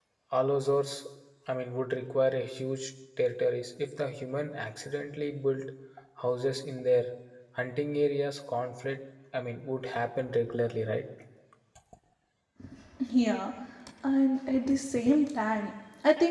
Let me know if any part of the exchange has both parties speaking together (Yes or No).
No